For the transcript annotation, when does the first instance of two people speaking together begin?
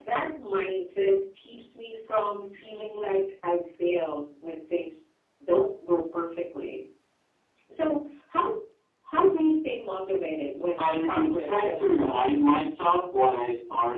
10.8 s

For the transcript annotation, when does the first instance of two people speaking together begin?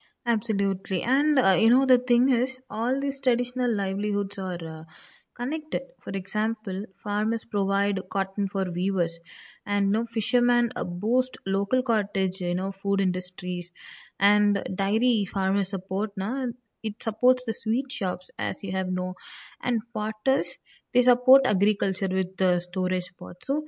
none

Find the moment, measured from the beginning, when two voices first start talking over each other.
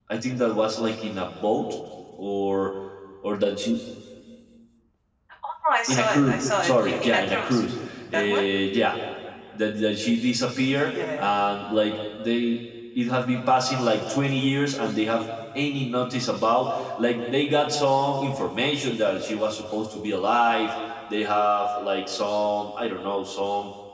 5.9 s

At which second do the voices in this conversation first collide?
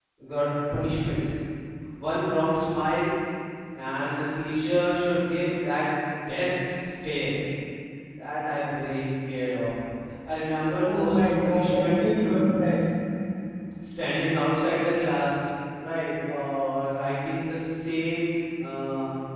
10.9 s

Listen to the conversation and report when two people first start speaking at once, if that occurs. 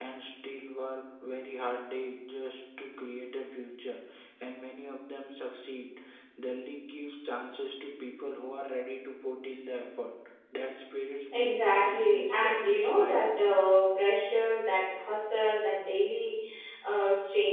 11.3 s

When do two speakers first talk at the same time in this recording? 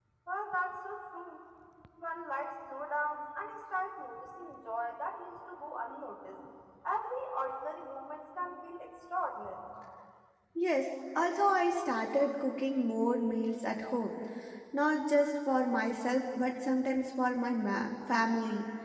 none

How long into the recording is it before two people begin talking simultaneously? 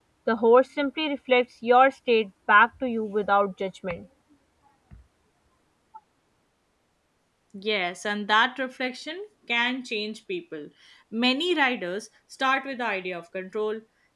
none

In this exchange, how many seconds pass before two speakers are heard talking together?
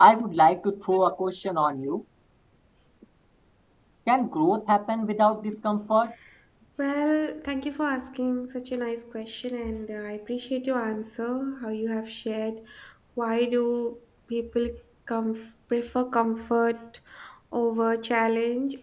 none

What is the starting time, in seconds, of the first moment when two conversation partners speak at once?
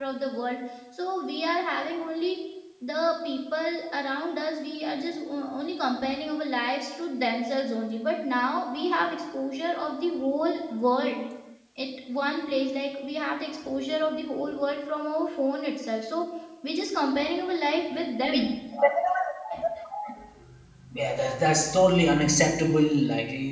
none

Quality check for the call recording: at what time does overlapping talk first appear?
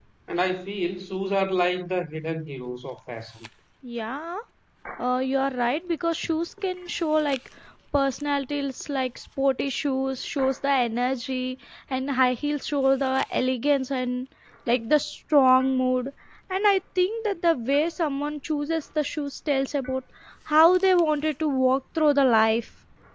none

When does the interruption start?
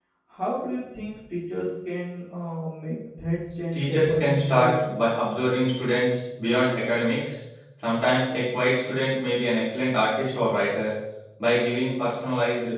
3.7 s

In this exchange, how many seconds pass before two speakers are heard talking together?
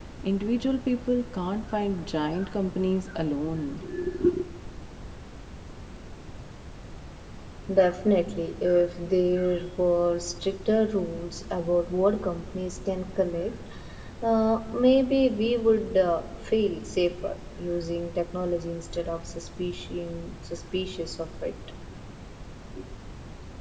none

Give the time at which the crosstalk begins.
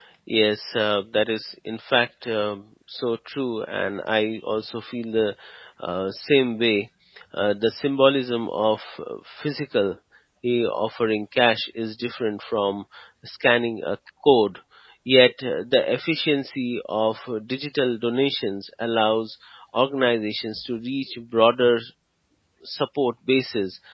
none

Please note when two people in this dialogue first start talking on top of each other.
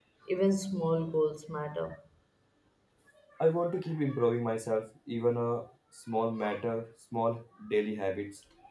none

